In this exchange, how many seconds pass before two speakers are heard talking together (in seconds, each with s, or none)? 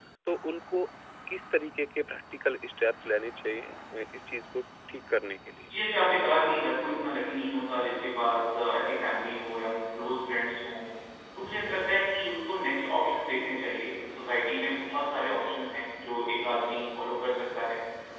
none